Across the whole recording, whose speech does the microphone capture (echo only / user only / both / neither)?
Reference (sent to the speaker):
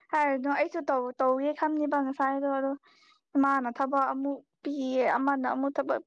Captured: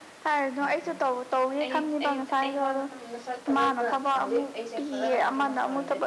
both